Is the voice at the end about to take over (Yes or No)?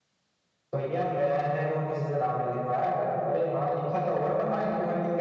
No